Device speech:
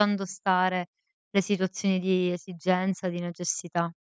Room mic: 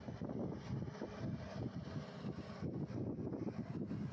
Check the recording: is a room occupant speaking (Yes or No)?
No